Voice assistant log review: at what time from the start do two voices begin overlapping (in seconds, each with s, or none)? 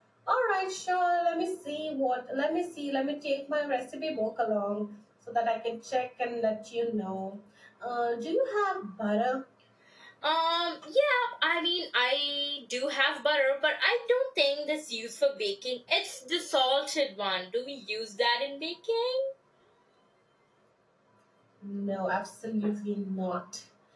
none